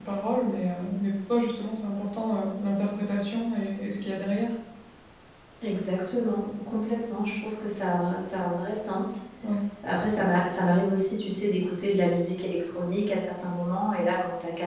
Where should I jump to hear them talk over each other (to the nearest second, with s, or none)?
none